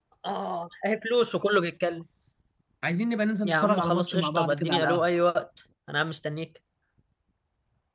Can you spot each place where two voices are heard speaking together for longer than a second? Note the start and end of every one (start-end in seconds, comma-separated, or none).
3.4-5.1